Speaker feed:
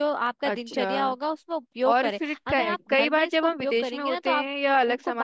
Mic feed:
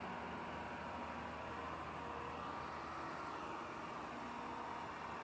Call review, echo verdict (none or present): none